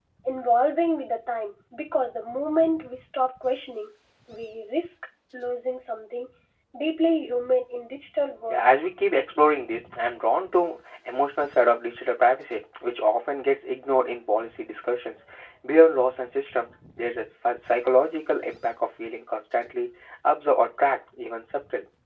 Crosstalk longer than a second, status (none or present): none